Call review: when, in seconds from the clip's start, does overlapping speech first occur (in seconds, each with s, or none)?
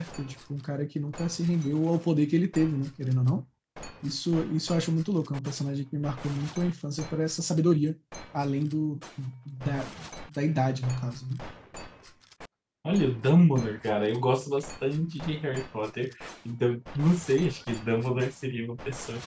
none